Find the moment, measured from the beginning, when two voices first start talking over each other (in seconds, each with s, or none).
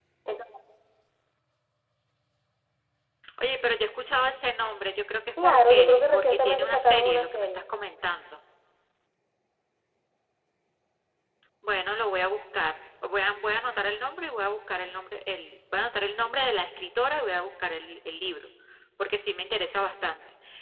5.4 s